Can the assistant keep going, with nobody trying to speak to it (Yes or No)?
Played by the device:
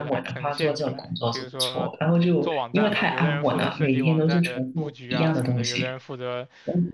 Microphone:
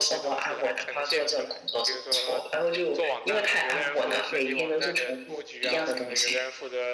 Yes